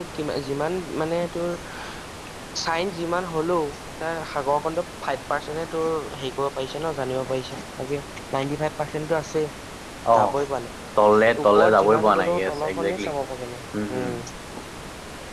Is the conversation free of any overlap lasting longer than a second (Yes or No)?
No